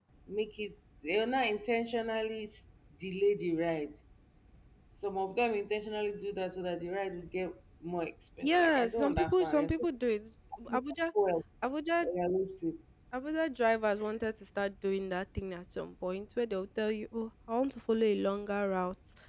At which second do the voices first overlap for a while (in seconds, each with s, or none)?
8.4 s